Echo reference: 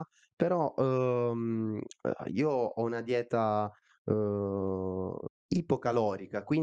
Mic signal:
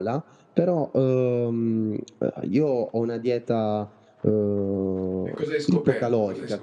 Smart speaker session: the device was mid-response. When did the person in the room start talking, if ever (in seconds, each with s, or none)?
5.3 s